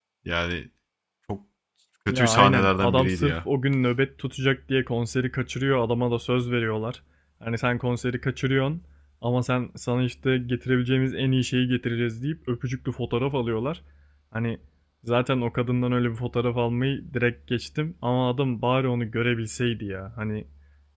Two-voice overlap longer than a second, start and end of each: 2.1-3.4

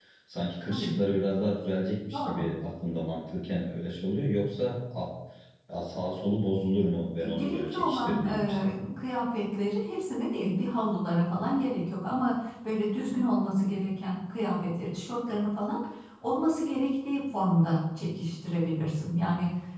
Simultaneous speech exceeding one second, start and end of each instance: 7.3-8.6

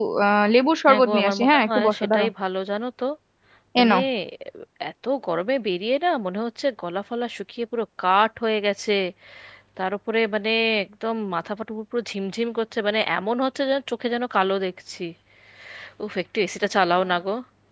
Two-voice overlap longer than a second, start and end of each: 0.9-2.3

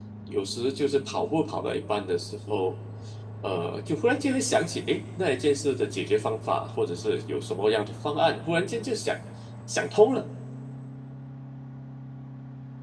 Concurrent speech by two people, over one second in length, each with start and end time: none

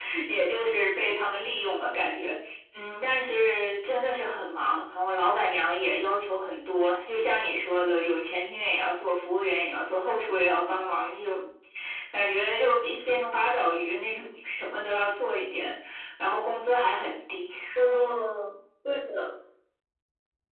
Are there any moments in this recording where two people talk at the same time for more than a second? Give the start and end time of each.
none

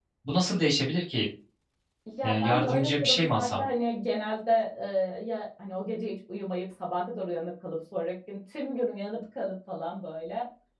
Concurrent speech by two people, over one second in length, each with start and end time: 2.2-3.7

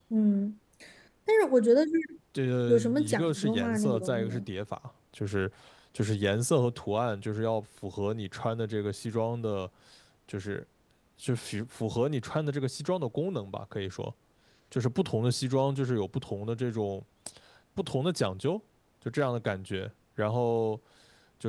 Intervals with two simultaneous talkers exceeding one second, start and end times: 2.7-4.4

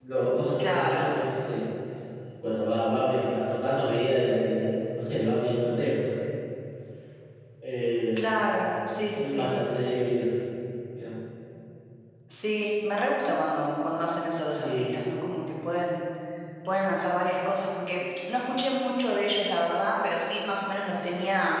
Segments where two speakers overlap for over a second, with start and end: none

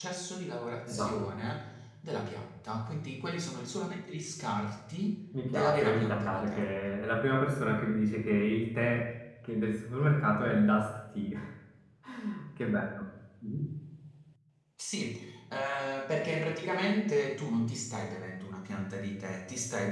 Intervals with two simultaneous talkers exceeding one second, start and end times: 5.5-6.8

